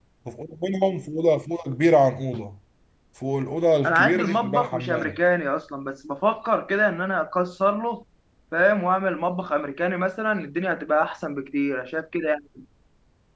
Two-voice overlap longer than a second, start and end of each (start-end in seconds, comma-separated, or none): 3.9-5.2